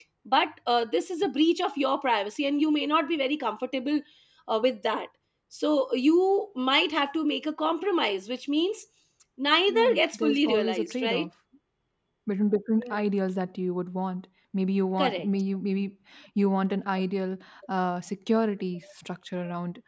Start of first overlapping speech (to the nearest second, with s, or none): 10 s